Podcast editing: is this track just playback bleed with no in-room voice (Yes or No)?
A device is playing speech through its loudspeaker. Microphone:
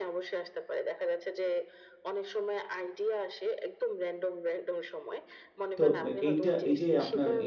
No